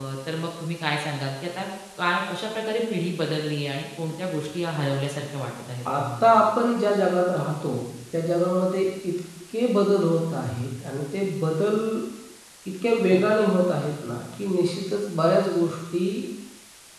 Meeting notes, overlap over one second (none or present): none